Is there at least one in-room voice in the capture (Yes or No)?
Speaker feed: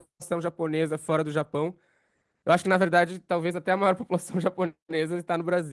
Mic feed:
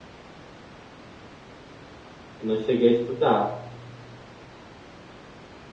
Yes